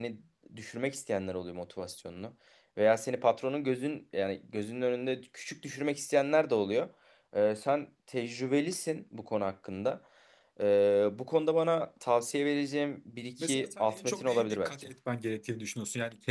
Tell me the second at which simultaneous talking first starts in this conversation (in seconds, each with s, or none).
13.4 s